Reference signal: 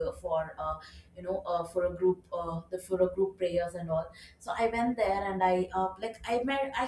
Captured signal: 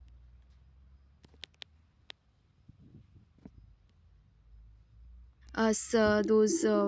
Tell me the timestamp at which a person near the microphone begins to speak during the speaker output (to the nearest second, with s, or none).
6 s